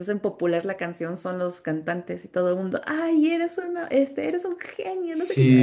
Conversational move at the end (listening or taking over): taking over